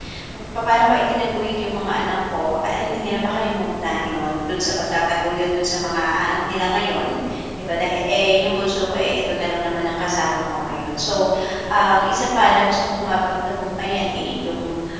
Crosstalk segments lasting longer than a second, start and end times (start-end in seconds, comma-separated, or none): none